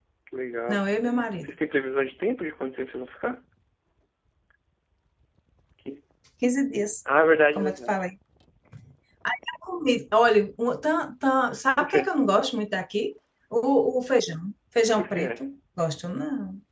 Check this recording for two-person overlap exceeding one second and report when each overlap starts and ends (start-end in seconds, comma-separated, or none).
none